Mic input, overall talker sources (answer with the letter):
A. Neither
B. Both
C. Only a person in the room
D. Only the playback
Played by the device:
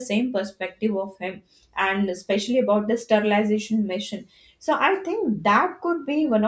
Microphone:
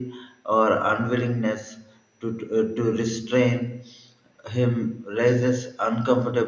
C